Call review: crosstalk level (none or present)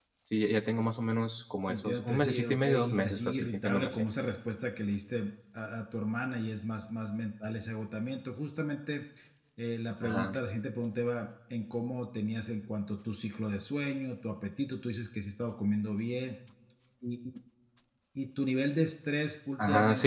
present